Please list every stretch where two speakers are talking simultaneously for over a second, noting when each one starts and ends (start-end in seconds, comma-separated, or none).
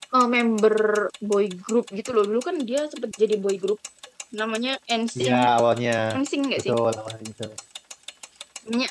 none